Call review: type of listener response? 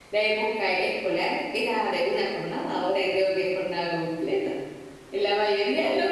listening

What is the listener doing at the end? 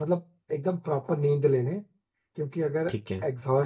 listening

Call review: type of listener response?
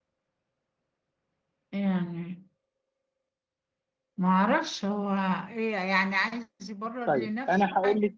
taking over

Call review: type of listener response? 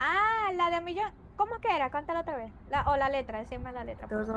taking over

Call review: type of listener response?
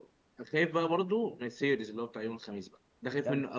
taking over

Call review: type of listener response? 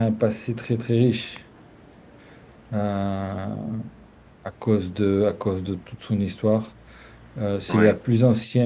listening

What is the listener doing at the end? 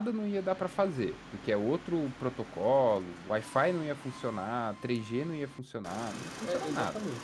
taking over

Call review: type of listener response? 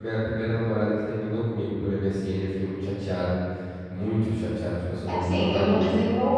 taking over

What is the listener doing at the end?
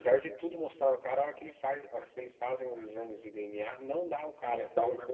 taking over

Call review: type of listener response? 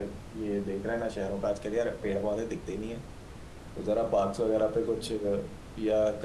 listening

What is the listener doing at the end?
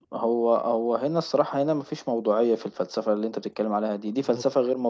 listening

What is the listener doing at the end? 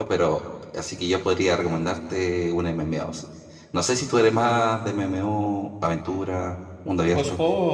taking over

